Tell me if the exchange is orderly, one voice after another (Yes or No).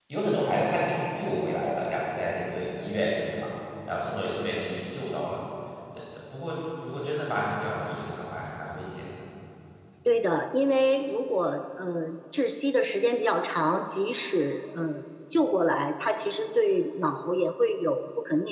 Yes